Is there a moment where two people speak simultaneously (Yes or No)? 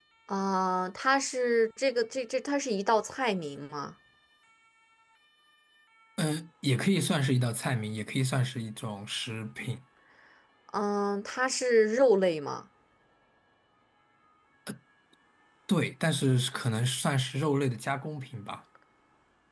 No